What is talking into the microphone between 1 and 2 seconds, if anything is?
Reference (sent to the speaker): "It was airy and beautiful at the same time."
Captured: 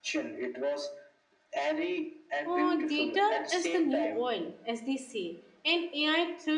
echo only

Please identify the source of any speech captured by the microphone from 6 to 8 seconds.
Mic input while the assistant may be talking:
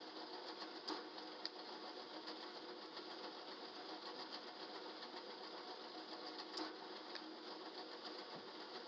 neither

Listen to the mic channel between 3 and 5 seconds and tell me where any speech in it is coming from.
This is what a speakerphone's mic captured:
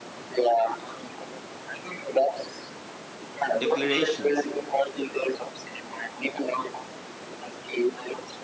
both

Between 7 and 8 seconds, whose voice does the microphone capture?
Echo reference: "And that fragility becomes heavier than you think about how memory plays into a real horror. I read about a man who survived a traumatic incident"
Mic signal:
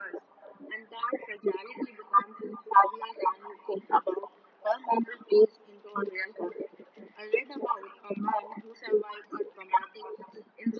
echo only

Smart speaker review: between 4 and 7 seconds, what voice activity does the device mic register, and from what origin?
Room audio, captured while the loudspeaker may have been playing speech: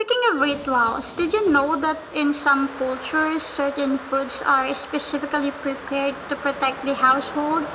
echo only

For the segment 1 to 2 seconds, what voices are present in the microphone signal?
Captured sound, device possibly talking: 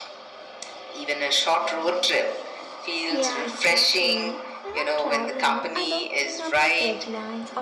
echo only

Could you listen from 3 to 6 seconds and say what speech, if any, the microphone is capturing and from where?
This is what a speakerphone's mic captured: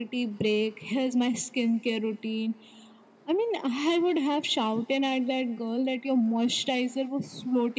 echo only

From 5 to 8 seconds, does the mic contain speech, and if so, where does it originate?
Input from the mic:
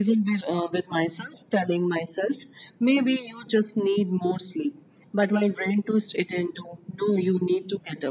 echo only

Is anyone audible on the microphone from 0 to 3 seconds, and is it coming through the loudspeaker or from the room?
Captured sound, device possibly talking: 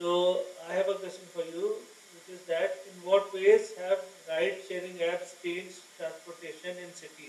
echo only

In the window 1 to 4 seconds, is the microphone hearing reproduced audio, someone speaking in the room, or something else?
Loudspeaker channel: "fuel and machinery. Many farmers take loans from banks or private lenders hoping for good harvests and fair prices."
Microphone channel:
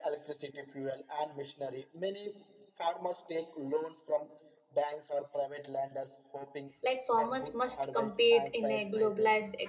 echo only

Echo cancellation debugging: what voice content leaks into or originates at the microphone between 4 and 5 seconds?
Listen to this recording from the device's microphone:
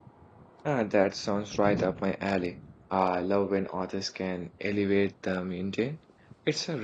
user only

